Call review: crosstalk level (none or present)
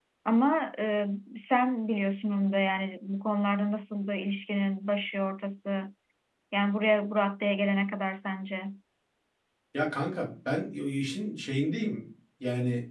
none